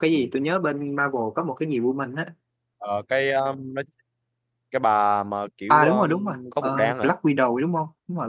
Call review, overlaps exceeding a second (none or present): present